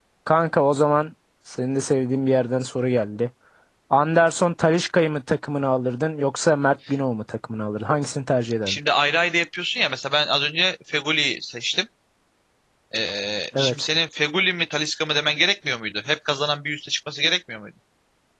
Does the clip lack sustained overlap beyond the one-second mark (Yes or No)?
Yes